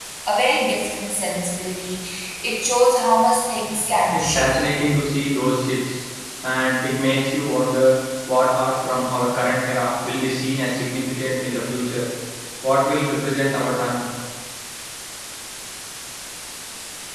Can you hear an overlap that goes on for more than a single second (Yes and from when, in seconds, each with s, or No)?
No